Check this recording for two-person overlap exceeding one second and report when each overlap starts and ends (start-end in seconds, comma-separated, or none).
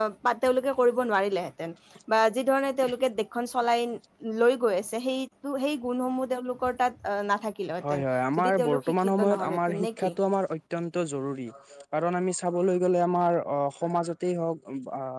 8.4-10.1